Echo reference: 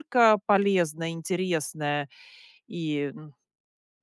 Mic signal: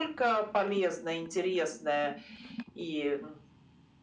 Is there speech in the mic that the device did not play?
No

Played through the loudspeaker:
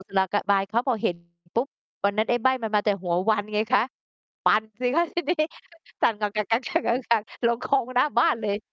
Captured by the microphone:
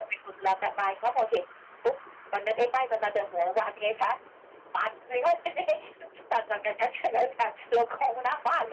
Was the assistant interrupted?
No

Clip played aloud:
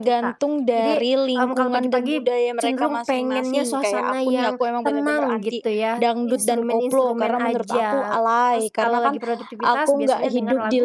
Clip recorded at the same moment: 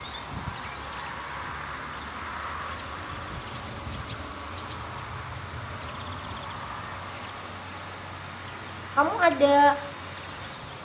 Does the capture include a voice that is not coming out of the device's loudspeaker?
Yes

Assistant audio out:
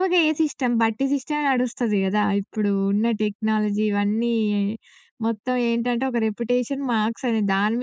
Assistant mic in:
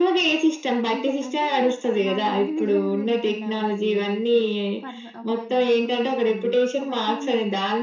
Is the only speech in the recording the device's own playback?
No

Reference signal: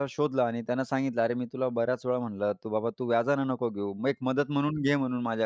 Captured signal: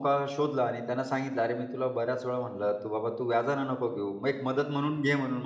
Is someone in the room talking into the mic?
No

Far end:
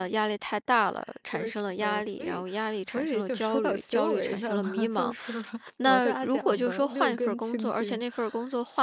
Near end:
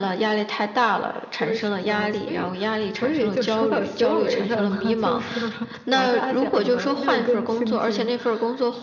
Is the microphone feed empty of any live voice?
Yes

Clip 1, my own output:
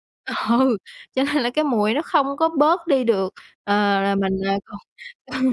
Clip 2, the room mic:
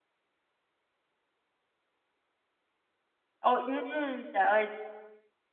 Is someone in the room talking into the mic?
Yes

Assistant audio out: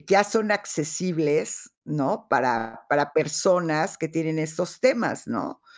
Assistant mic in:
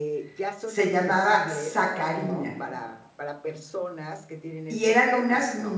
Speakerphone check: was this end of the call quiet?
No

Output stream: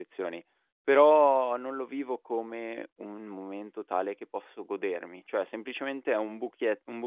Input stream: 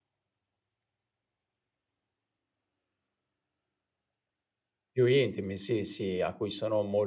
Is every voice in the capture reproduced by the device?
No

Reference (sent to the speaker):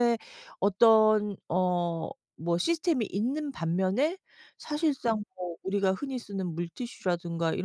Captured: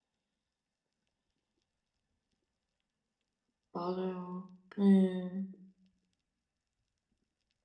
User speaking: Yes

